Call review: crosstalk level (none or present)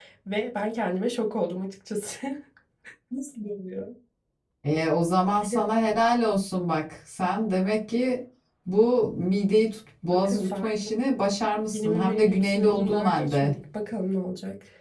present